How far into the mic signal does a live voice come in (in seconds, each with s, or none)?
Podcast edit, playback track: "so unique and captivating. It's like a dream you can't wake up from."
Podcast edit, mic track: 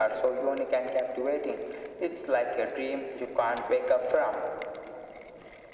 none